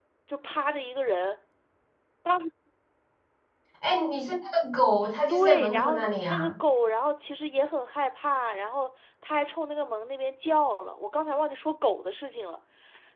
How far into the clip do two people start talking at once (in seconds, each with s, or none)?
5.3 s